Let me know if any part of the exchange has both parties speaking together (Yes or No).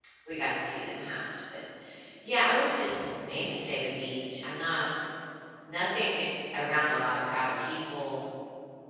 No